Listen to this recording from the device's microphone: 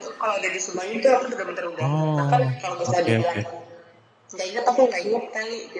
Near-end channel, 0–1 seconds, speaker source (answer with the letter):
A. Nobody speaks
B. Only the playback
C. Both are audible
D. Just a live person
B